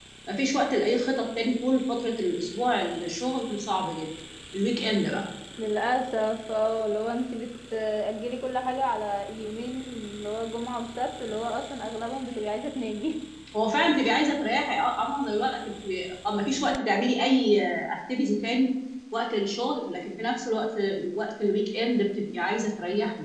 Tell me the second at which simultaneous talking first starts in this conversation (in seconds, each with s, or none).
none